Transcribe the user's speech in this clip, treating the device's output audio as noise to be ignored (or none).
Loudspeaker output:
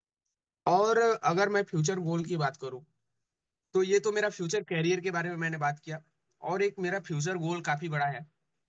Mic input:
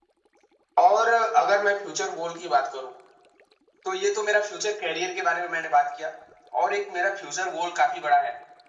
none